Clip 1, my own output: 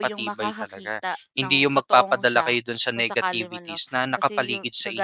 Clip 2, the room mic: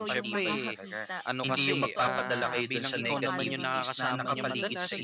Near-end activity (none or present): present